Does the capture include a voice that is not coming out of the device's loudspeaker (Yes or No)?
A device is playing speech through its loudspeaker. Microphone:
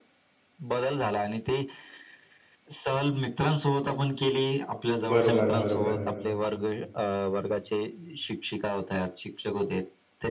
Yes